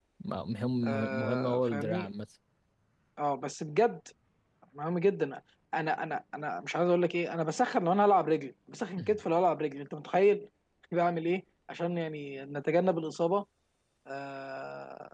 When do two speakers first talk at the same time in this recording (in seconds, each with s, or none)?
0.8 s